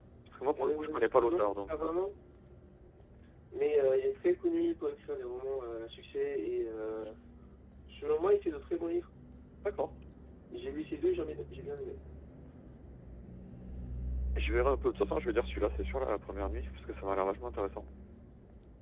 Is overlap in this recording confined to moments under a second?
No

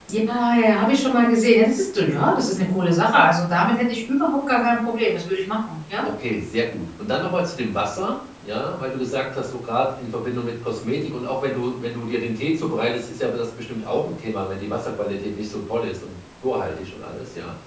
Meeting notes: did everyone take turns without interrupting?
Yes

